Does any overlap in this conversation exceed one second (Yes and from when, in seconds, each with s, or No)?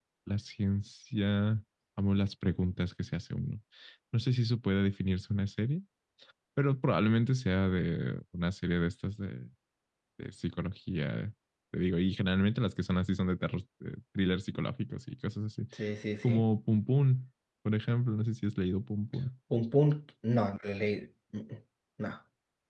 No